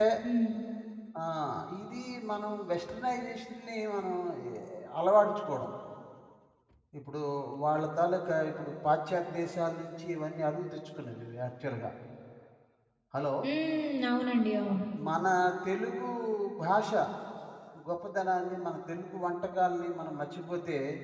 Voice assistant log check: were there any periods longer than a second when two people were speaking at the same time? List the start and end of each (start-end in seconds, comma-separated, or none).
none